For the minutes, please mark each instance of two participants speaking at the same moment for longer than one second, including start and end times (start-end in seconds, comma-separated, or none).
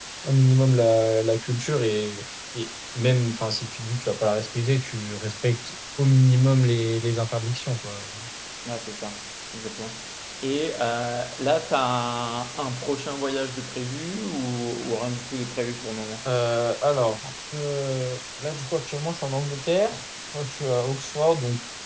none